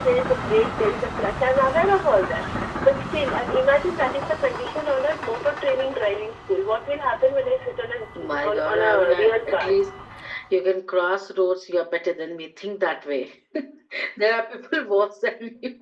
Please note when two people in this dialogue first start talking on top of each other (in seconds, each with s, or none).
8.2 s